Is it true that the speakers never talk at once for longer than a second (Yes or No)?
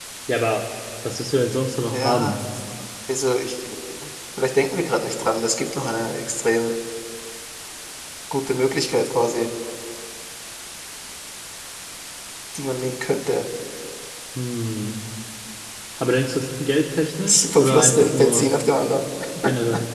No